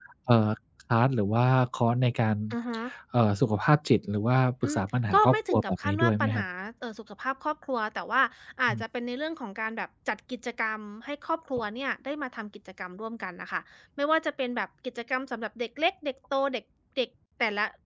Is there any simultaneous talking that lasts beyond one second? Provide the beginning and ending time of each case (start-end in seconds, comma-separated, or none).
4.6-6.4